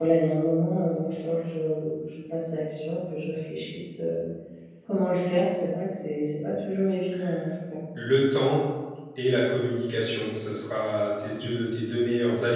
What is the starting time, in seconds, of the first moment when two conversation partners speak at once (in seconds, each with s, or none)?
none